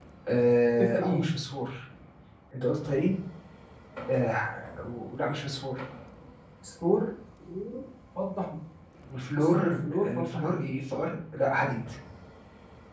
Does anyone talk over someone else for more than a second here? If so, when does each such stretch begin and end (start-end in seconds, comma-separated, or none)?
9.4-10.7